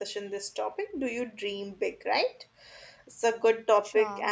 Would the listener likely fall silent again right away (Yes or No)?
Yes